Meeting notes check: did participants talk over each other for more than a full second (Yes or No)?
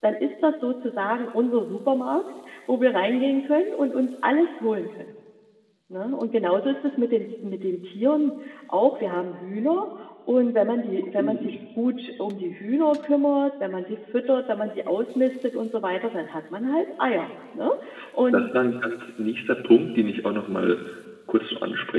No